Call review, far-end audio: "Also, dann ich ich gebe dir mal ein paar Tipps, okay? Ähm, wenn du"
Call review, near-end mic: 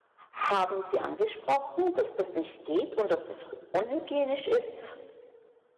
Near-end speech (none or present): present